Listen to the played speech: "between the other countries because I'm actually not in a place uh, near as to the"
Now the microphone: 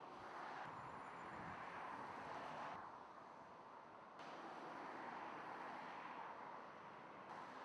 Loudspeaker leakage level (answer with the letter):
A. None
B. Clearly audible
A